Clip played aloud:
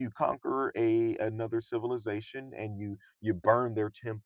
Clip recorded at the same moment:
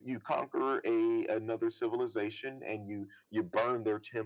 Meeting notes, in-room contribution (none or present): none